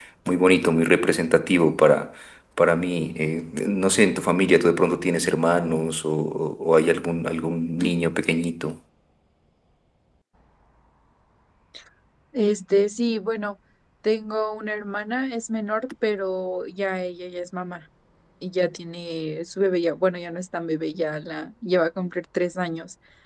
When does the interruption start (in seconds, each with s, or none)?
none